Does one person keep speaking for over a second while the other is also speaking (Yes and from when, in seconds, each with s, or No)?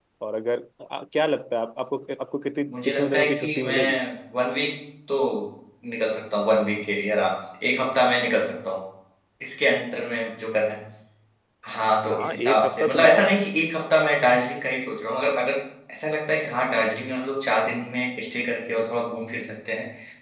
Yes, from 2.7 s